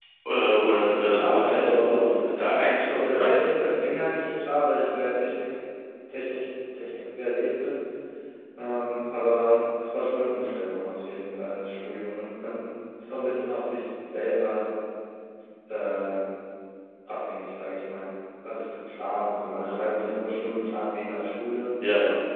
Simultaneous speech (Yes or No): Yes